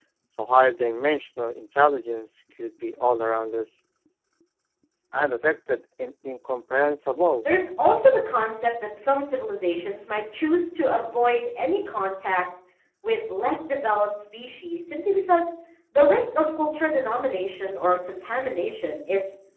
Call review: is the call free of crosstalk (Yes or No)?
Yes